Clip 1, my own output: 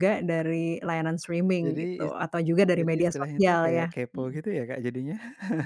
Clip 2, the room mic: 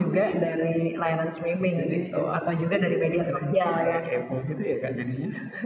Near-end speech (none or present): none